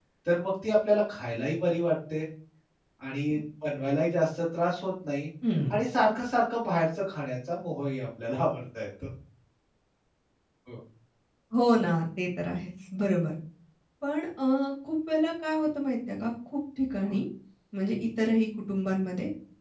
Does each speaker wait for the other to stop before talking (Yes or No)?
Yes